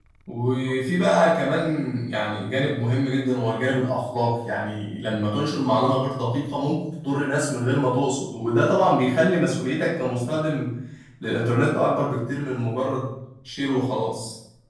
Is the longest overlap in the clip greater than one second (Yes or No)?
No